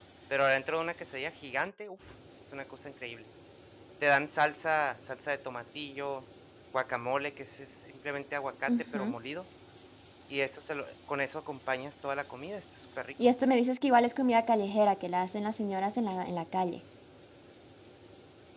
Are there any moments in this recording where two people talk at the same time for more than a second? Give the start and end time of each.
none

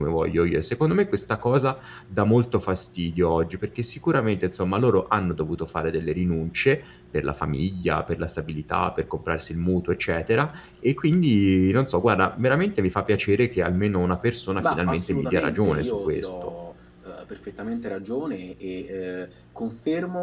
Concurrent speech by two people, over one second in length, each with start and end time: 14.6-16.3

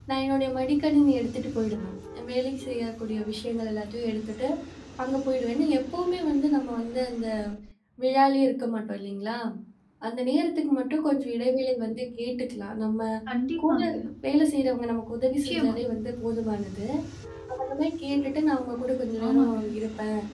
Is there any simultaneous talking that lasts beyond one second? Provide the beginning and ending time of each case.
none

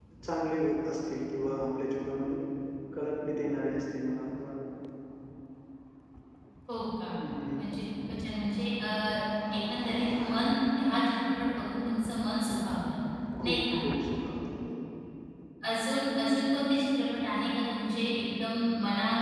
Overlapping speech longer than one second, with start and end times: none

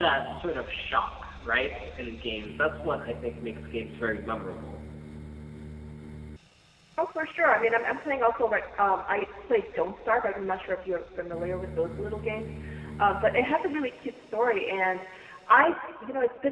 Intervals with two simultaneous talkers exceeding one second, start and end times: none

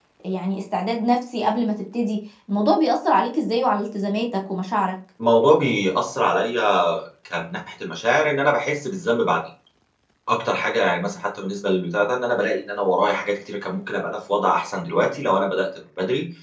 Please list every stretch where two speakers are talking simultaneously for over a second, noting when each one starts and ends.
none

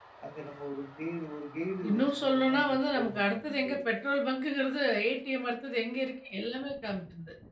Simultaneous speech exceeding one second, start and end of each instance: 1.9-4.0

